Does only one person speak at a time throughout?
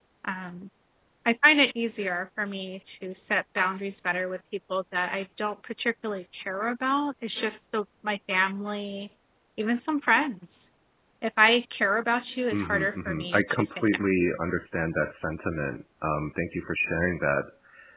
No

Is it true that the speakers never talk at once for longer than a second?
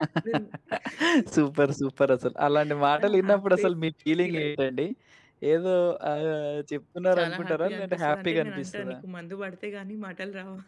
No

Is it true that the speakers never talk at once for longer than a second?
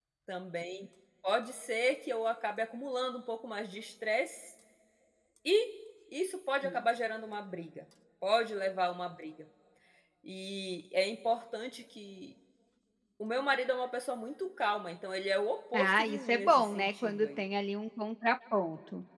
No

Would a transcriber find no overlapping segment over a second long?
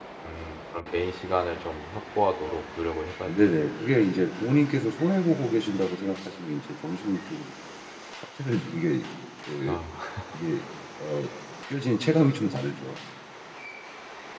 Yes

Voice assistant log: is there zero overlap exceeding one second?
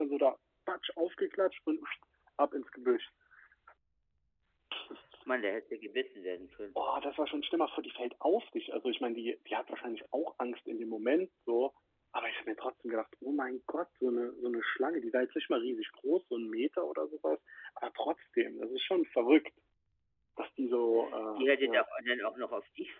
Yes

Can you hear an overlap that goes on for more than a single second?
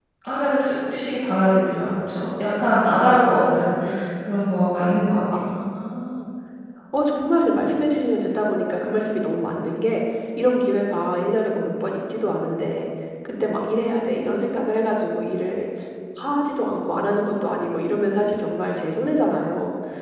No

